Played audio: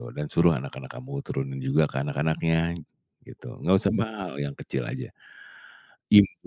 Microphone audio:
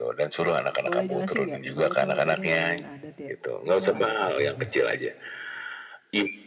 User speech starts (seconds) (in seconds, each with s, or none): 0.8 s